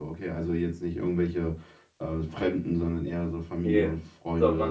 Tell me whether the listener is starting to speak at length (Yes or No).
Yes